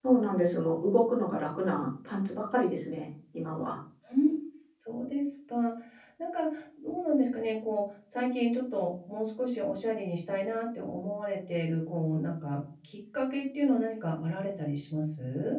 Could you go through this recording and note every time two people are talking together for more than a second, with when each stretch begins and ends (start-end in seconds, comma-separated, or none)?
none